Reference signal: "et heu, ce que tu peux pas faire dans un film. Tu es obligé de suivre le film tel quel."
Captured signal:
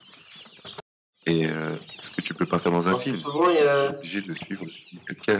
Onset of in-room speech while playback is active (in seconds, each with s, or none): 2.9 s